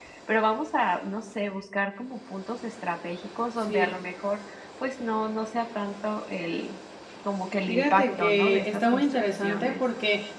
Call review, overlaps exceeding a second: present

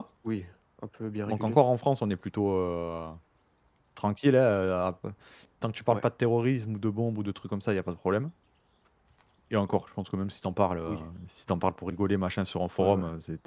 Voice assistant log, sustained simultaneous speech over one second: none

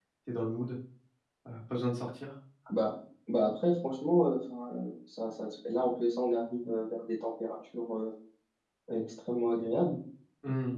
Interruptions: none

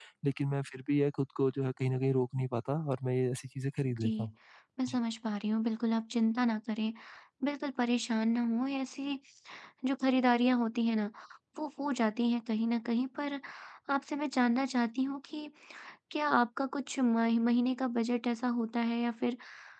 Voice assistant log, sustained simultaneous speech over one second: none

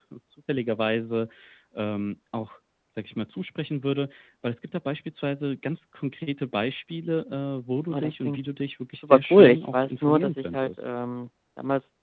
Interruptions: present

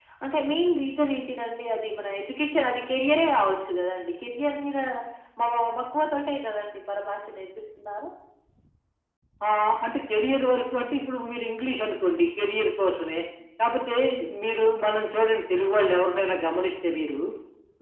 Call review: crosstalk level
none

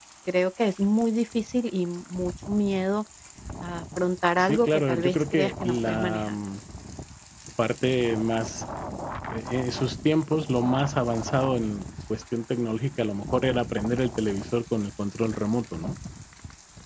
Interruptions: present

